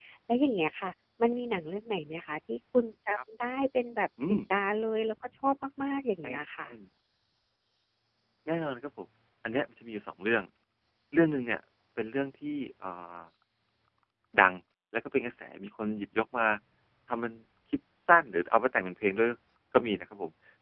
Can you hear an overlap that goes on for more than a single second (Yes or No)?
No